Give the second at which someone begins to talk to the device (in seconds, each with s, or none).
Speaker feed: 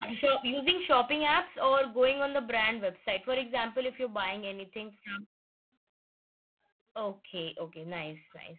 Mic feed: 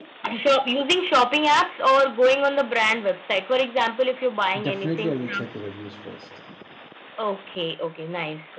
4.6 s